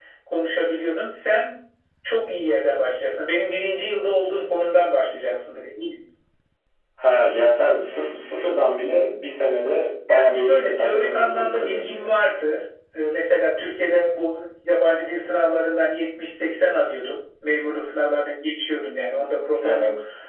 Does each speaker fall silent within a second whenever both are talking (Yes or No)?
No